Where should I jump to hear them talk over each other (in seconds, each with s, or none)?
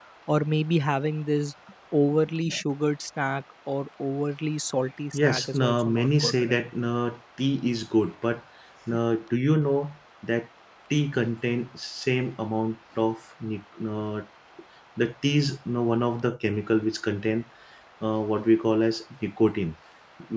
5.1 s